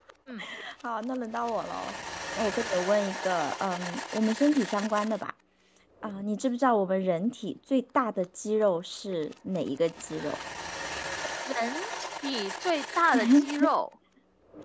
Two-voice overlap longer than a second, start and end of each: none

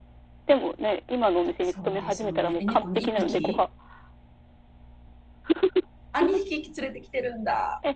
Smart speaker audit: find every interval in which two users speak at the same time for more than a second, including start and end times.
1.7-3.6

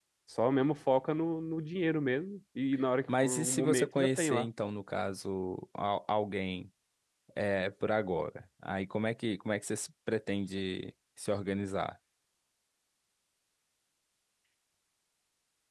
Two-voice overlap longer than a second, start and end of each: 3.1-4.5

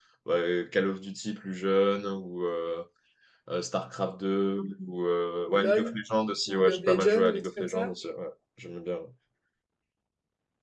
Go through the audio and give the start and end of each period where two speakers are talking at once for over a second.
6.5-7.9

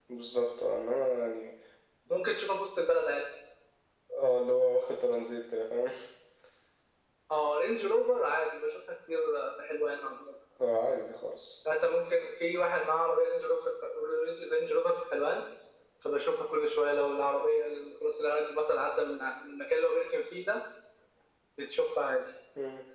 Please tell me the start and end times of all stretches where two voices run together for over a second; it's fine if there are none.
none

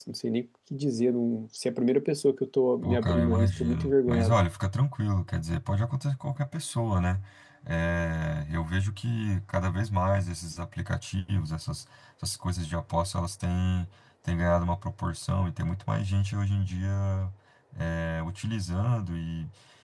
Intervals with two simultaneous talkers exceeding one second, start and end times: 2.8-4.4

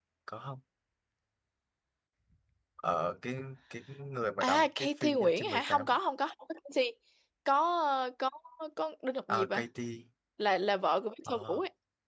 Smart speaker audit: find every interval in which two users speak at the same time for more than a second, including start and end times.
4.4-5.9

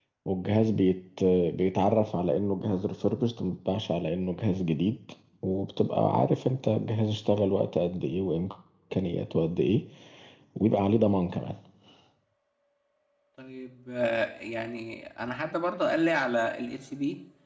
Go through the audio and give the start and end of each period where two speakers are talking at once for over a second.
none

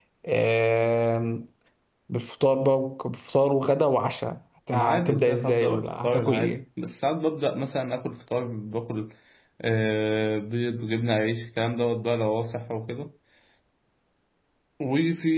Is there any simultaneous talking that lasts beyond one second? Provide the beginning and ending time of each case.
4.7-6.6

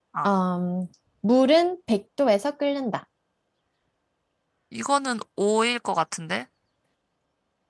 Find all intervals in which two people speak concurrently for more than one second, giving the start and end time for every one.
none

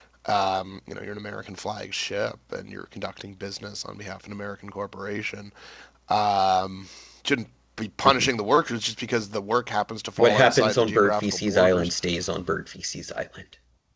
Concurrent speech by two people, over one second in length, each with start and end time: 10.2-11.9

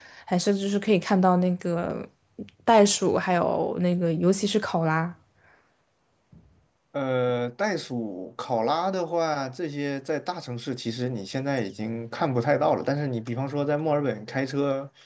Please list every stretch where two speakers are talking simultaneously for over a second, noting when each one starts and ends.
none

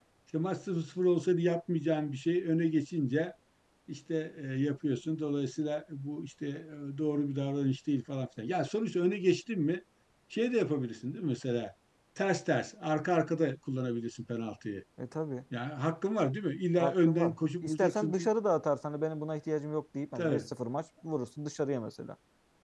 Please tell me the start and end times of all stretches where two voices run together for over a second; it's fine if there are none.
16.8-18.3

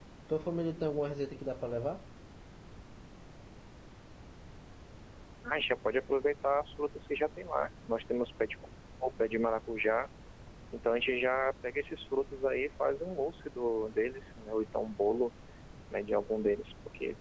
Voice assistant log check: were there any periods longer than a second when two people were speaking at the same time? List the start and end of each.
none

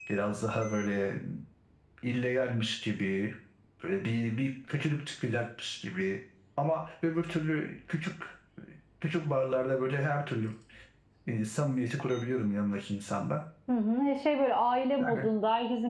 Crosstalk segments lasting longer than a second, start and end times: none

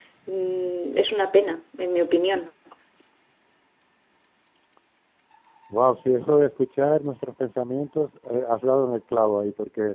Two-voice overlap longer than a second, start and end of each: none

